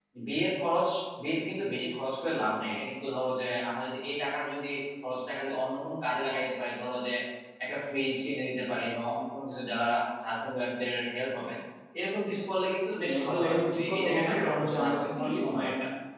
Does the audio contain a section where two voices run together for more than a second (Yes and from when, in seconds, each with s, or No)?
Yes, from 13.1 s